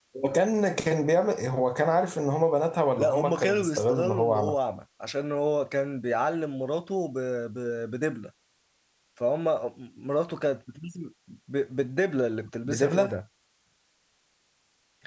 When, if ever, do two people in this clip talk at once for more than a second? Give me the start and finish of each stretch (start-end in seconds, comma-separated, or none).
3.0-4.5